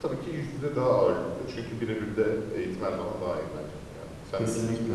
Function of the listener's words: taking over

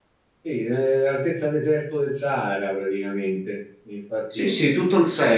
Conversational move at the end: taking over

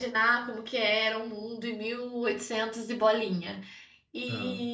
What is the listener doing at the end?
listening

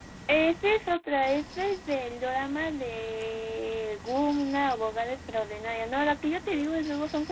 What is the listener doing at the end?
listening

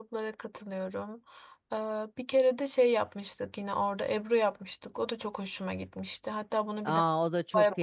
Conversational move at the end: taking over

